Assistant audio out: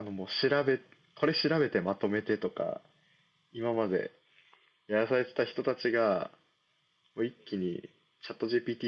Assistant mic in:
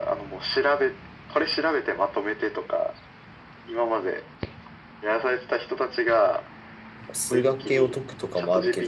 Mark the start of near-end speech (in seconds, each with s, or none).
7.1 s